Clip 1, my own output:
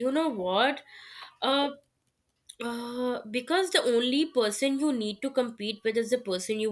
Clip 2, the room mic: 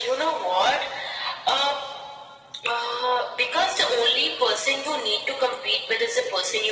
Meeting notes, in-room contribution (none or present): none